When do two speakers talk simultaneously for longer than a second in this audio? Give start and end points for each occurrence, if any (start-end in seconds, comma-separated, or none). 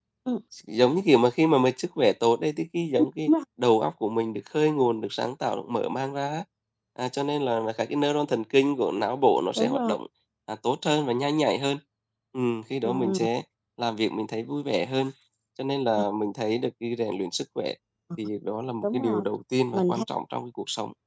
none